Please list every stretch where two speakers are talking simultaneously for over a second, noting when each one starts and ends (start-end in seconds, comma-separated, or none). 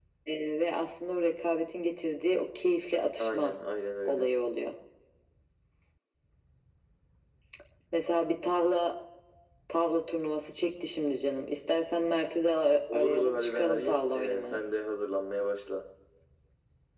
12.9-14.6